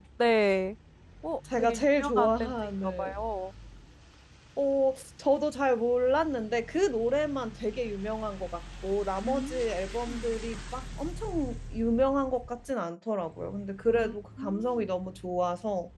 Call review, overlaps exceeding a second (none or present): present